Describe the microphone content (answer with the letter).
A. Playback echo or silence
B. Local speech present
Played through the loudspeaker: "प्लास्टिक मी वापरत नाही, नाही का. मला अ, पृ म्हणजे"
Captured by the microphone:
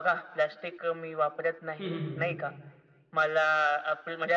B